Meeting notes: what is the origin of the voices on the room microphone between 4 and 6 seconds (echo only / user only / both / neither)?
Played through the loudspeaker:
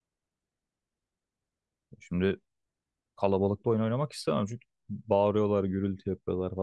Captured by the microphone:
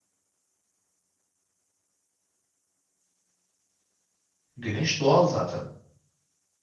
user only